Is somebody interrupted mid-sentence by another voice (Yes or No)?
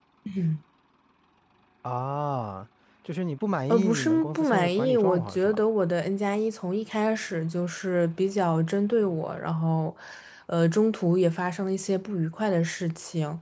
Yes